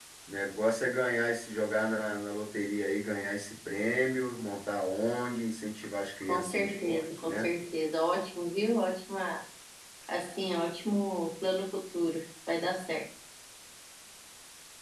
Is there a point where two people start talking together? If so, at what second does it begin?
6.2 s

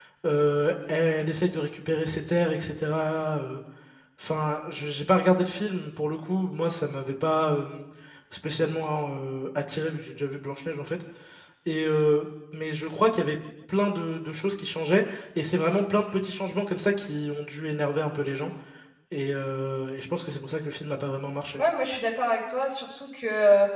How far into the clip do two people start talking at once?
none

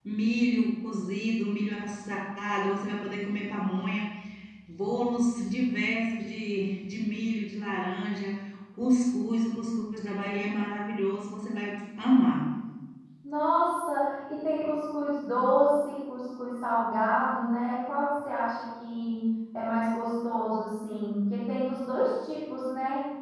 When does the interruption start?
none

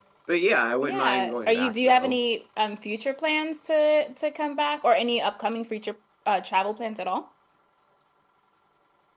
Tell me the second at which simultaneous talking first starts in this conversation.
0.8 s

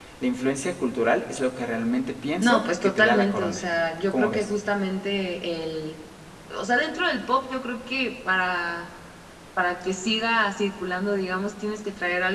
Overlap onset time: 2.4 s

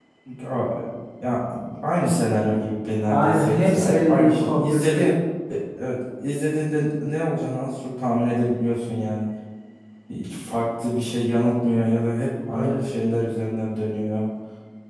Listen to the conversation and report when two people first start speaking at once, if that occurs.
3.0 s

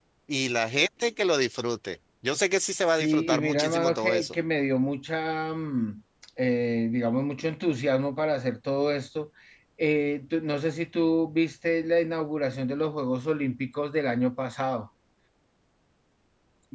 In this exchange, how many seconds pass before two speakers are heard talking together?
2.9 s

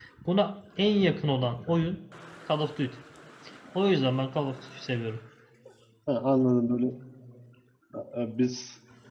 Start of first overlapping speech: none

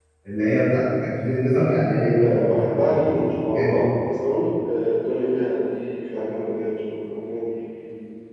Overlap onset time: 1.9 s

